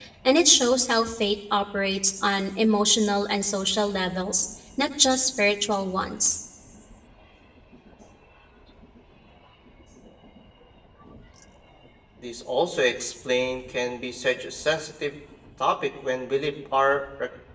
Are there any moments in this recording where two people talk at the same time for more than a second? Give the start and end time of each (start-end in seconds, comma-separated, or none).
none